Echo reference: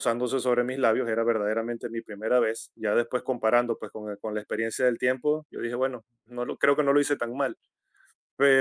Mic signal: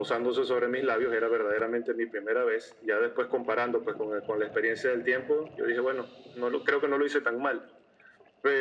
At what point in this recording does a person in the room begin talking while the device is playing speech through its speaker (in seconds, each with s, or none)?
none